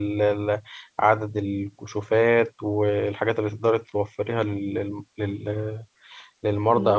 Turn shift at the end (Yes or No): No